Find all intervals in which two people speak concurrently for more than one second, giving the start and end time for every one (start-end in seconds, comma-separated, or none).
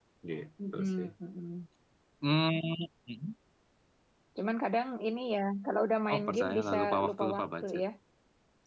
6.1-7.8